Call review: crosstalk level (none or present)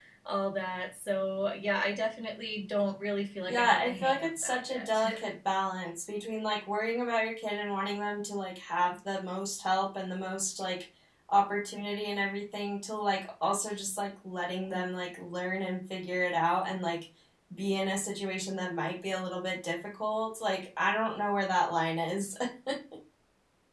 present